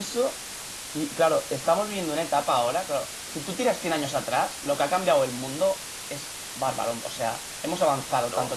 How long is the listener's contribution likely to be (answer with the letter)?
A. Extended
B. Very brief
B